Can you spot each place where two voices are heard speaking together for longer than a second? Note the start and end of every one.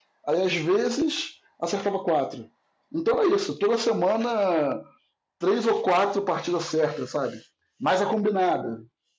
none

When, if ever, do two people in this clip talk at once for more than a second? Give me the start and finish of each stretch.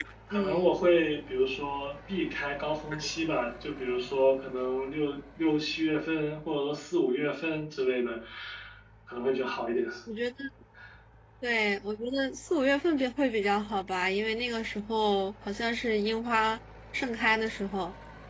none

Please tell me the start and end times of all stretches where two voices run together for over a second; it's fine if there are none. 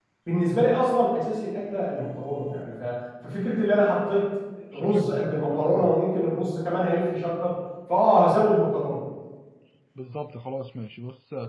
4.7-6.0

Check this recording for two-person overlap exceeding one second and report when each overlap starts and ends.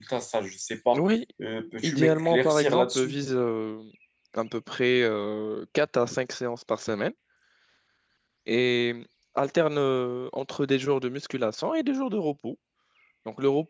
1.8-3.1

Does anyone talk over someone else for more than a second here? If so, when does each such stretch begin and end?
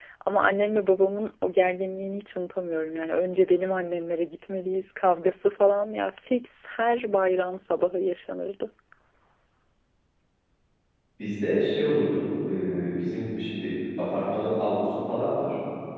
none

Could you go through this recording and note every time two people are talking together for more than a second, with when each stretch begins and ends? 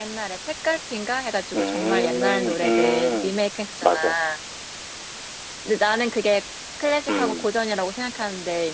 1.5-3.4

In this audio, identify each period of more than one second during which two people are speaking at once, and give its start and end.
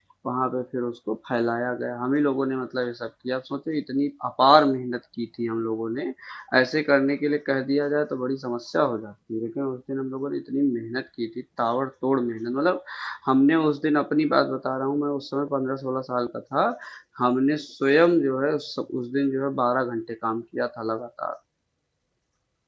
none

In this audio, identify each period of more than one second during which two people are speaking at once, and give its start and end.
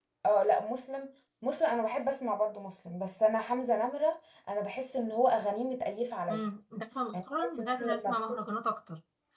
7.1-8.4

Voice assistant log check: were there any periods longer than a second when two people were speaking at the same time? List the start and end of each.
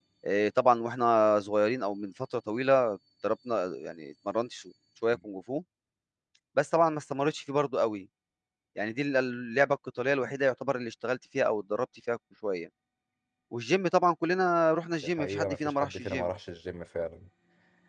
15.0-16.3

